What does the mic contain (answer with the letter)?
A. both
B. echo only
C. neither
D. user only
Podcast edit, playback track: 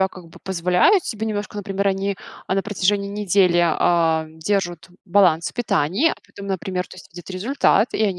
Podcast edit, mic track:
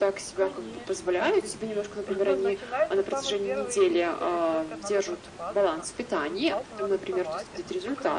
A